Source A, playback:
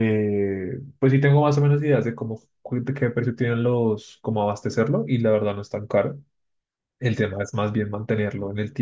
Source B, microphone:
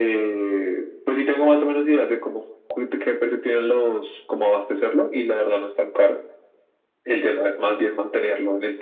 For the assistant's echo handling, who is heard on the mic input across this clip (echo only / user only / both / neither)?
echo only